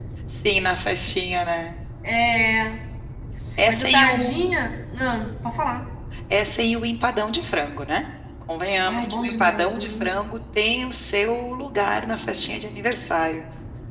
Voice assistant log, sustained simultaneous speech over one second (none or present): present